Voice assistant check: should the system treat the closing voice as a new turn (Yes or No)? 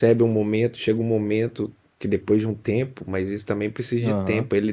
No